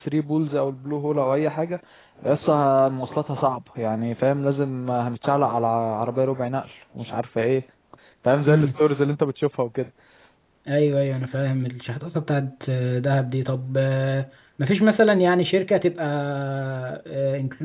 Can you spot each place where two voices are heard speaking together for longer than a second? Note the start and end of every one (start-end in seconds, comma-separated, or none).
none